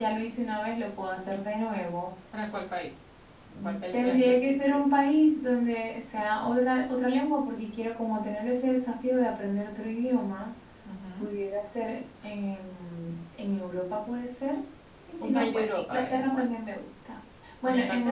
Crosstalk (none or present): present